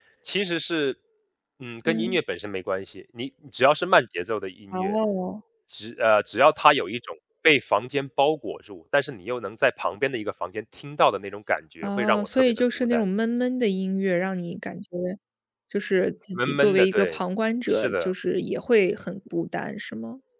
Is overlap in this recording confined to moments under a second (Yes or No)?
No